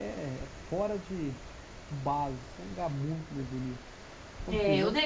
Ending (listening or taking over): taking over